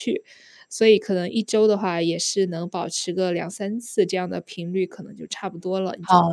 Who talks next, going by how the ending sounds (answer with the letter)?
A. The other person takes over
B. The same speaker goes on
A